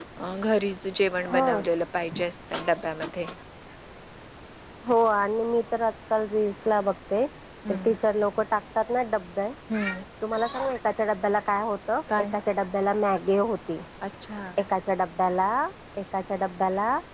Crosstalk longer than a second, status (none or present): none